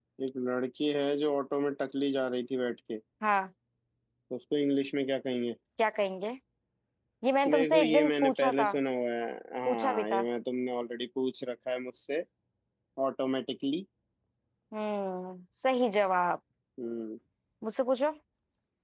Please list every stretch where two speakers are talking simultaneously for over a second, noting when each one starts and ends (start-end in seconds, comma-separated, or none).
7.5-8.7